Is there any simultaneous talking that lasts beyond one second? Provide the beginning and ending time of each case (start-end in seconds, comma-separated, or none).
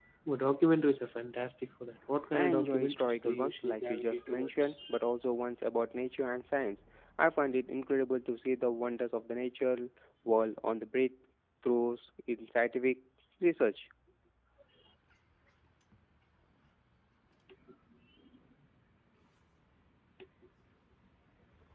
2.3-4.8